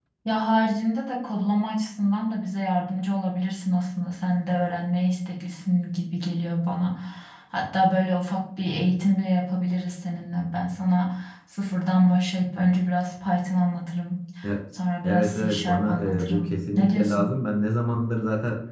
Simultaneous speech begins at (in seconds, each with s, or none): 15.0 s